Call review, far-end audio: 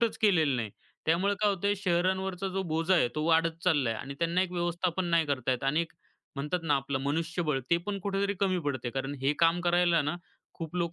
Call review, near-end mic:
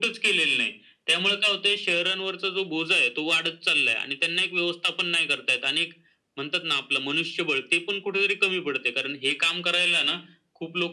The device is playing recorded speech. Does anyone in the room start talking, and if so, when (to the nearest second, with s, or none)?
none